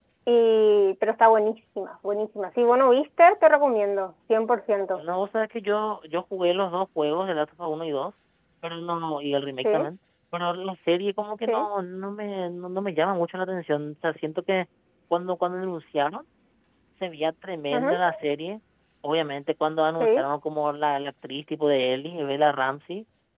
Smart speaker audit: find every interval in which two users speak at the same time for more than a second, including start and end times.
none

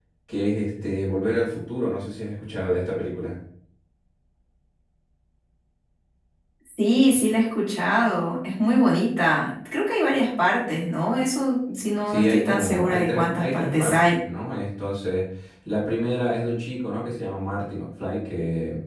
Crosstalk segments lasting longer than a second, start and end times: 12.1-14.0

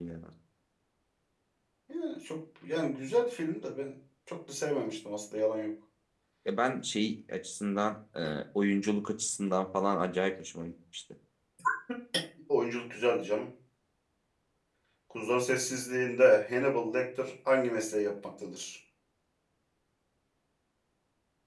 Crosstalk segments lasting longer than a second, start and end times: none

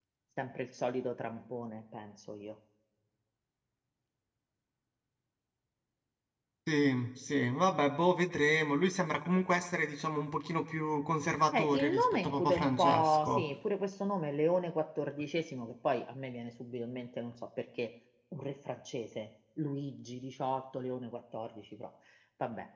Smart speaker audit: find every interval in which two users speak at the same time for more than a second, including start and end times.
11.6-13.4

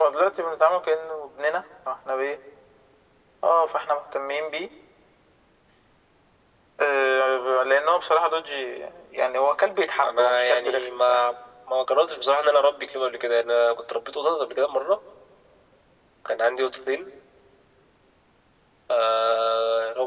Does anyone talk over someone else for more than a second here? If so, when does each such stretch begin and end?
10.0-11.3

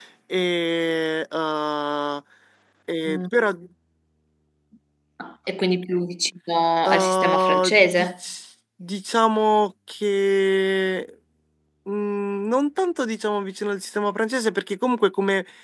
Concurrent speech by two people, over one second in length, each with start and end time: 6.9-8.1

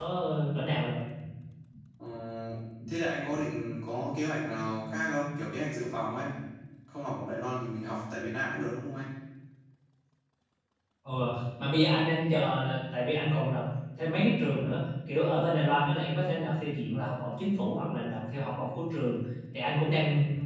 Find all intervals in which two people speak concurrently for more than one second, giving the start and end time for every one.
none

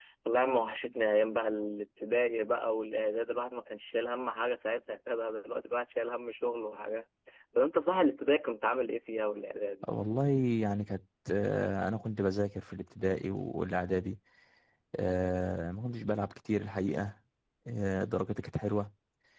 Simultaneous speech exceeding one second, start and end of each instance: none

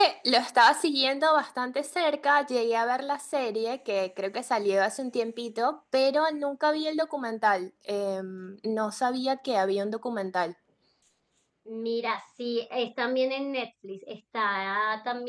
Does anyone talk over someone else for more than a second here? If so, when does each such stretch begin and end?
none

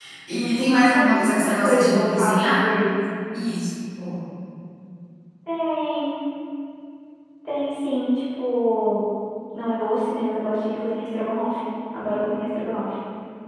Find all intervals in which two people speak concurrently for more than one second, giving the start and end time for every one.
0.9-2.6

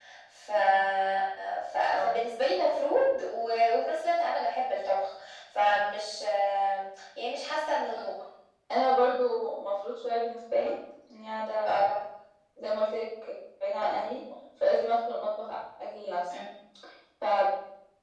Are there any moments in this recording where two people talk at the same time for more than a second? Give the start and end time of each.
none

